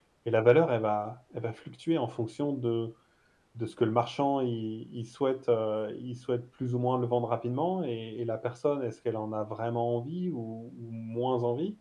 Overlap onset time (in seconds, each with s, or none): none